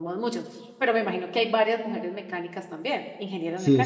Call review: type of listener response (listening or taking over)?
taking over